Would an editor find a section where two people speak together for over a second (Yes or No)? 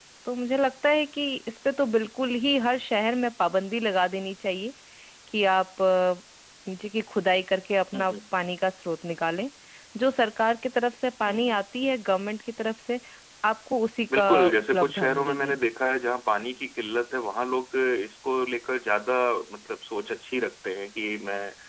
Yes